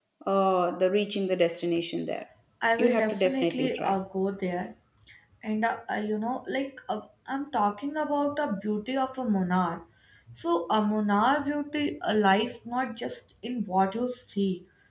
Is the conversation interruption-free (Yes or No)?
No